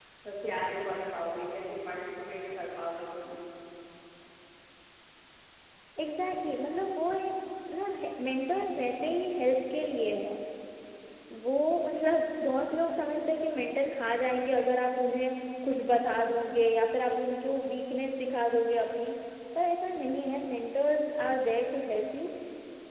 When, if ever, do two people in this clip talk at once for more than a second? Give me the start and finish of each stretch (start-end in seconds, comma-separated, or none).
none